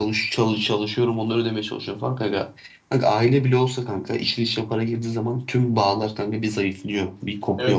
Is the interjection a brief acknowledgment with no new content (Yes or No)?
No